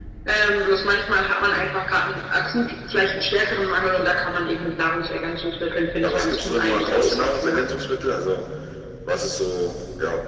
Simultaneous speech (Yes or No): Yes